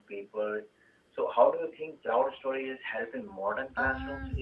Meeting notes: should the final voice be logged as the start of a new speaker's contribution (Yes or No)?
Yes